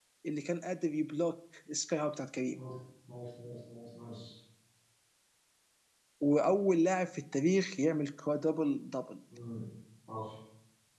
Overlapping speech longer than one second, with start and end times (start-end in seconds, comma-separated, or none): none